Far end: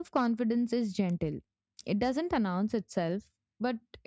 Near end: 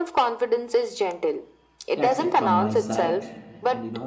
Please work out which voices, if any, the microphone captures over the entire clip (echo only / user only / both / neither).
both